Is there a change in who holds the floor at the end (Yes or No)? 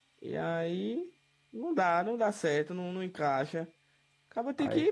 No